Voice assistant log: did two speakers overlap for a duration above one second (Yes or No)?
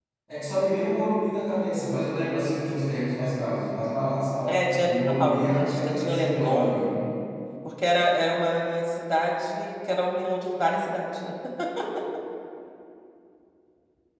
Yes